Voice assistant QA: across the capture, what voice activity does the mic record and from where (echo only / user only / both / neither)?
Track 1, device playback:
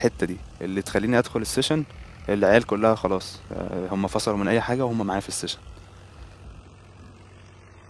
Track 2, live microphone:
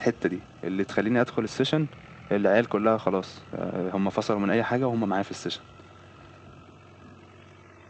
echo only